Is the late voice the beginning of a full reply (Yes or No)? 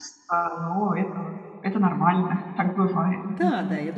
Yes